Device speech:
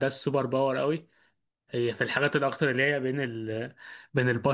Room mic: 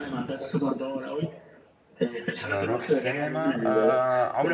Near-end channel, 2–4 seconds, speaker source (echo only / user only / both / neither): both